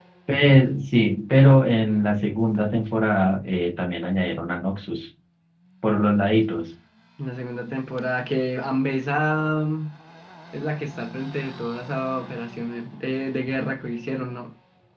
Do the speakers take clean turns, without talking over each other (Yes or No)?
Yes